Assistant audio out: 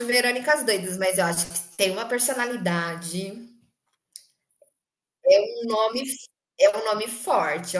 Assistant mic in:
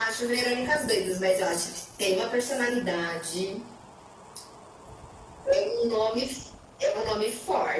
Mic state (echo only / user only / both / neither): echo only